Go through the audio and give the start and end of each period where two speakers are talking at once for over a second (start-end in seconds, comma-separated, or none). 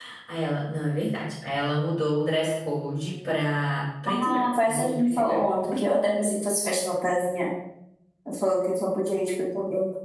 4.1-5.4